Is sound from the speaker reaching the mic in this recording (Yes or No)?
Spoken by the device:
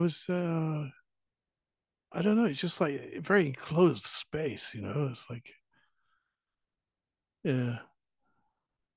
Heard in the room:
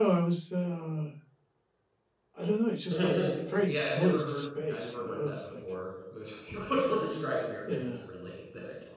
Yes